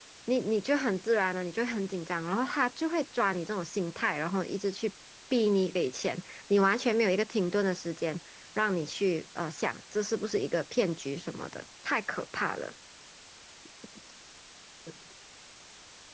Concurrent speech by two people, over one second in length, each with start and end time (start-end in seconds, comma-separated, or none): none